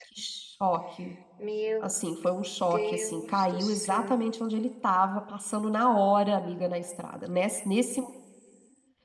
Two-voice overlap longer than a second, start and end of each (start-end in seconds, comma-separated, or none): 2.7-4.3